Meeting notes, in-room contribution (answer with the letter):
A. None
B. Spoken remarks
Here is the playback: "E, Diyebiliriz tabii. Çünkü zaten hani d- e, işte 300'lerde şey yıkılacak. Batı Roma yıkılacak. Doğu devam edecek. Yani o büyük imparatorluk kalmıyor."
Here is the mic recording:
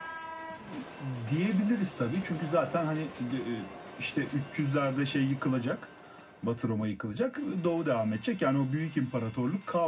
A